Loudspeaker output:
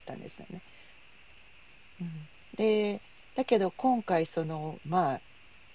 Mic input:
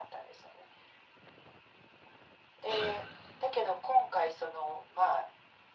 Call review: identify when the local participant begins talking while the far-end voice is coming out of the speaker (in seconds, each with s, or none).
2.7 s